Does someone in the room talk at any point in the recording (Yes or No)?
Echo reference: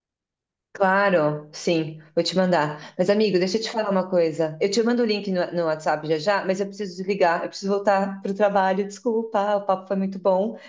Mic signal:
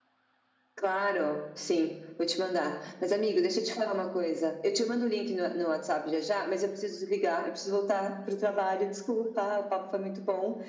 No